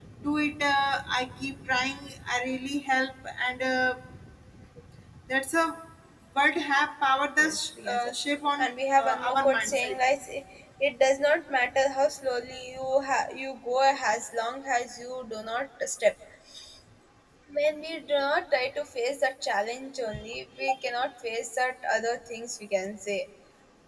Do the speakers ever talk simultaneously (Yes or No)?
Yes